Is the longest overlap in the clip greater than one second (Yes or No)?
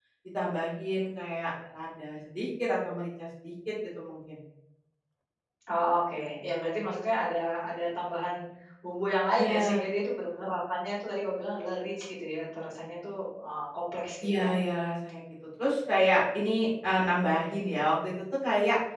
No